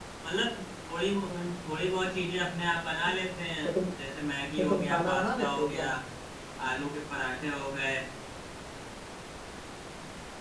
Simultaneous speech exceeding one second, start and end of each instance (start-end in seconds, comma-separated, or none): 4.6-5.9